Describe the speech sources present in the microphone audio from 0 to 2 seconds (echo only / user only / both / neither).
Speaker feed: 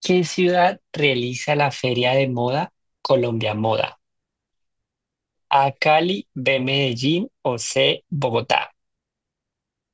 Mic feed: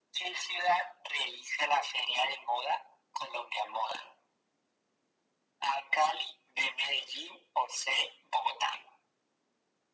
echo only